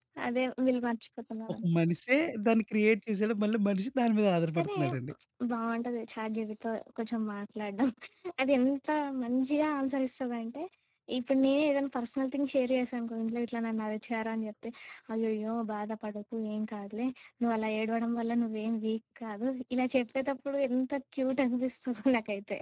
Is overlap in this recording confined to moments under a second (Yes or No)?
Yes